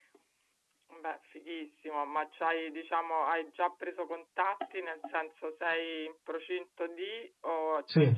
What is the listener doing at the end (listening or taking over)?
listening